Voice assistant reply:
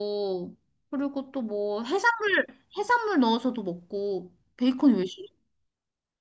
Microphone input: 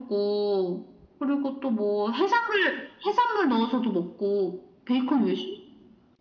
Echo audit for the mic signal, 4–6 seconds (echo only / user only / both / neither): echo only